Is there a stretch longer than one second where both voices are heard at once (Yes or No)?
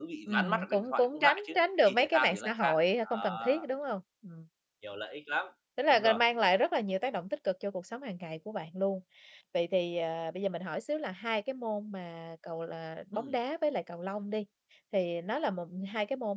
Yes